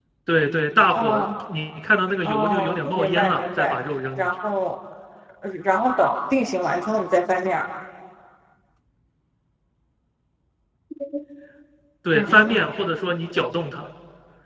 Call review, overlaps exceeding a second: present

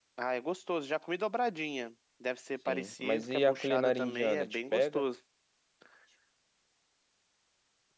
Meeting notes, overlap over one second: present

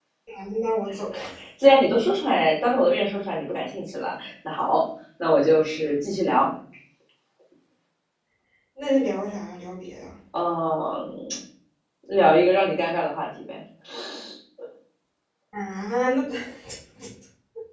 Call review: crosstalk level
none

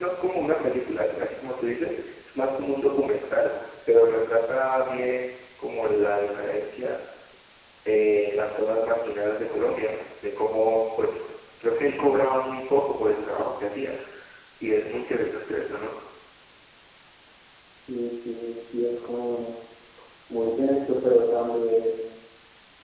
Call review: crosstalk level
none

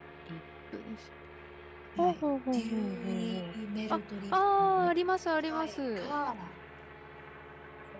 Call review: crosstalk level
present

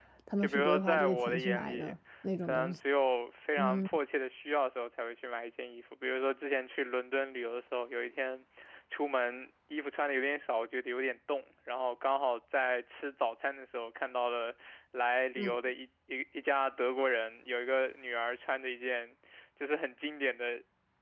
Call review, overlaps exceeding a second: present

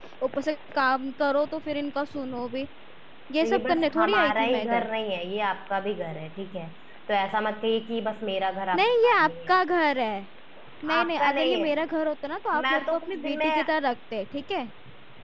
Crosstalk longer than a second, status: present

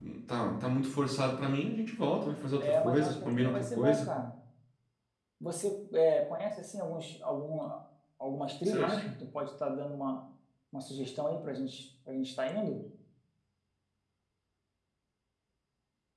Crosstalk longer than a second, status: present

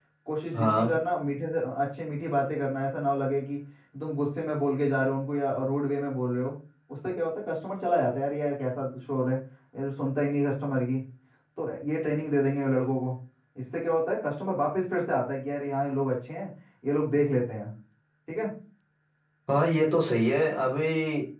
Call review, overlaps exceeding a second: none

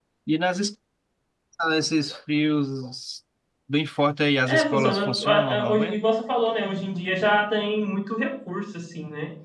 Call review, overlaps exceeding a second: present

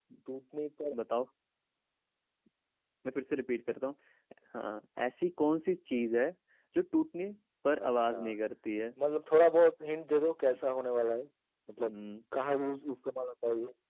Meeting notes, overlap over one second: none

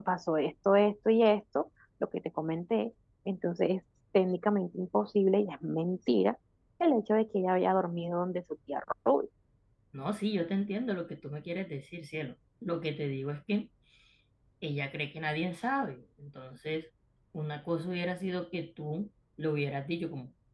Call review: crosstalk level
none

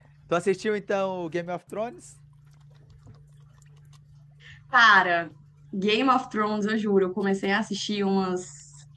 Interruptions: none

